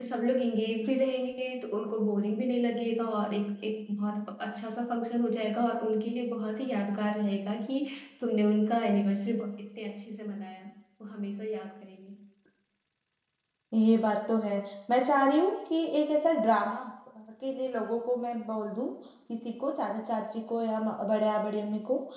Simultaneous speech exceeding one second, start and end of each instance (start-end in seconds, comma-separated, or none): none